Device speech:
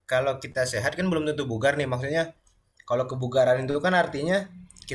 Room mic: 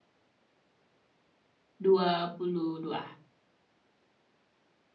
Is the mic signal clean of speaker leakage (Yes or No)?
Yes